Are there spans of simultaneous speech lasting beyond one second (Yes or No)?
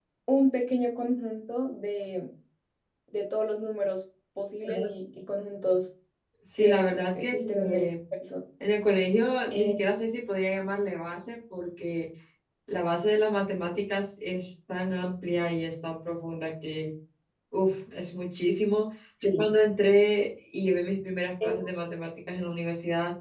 Yes